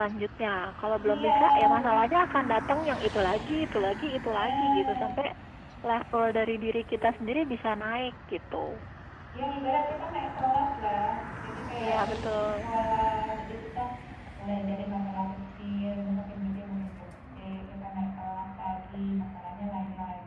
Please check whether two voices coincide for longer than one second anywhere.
Yes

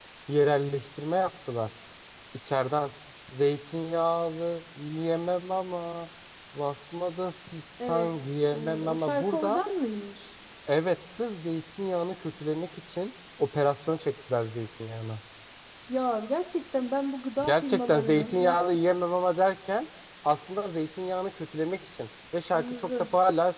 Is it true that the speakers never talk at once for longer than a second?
No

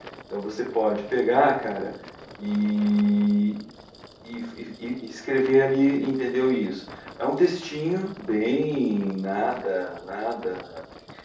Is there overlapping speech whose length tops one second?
No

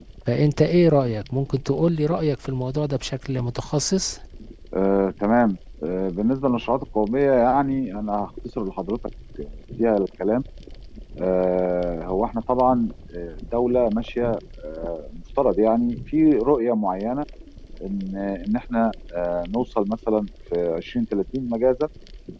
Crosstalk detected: No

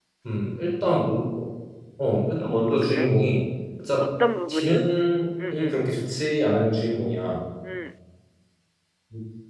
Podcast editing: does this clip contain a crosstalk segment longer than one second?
No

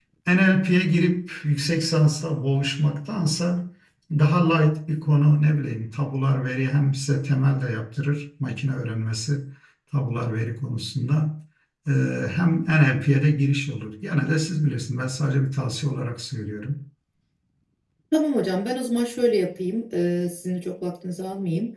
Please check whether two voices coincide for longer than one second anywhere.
No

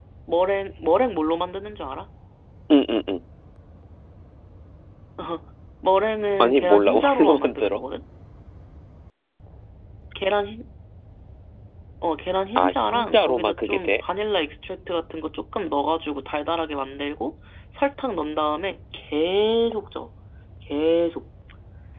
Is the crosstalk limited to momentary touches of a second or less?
No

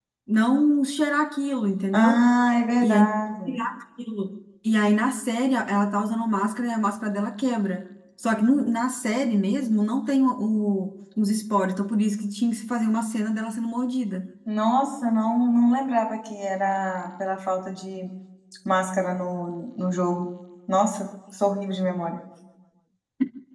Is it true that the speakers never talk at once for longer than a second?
Yes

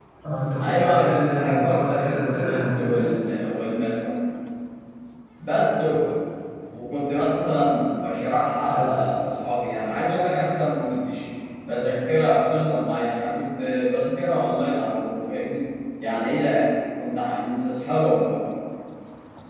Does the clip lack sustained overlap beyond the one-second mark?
No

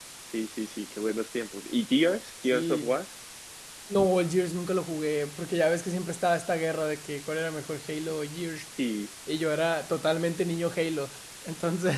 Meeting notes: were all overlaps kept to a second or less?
Yes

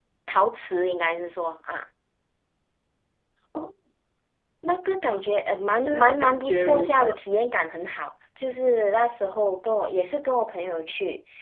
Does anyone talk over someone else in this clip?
Yes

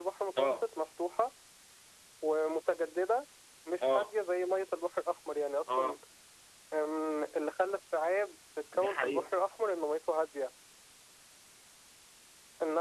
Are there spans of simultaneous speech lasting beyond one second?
No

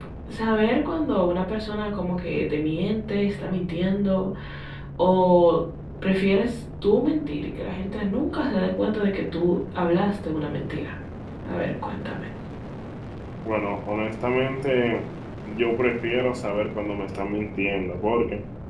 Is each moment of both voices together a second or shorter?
Yes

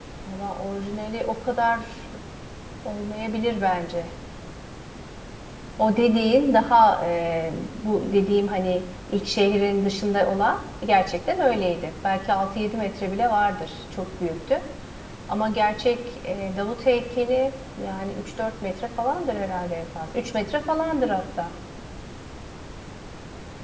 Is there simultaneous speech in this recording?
No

